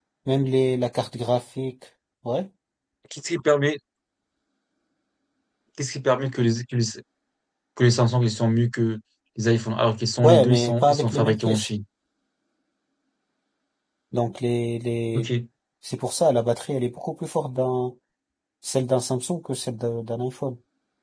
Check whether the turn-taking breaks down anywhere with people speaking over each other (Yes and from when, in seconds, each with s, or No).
Yes, from 10.2 s